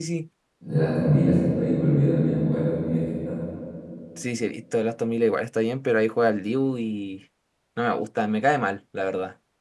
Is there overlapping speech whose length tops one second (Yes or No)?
No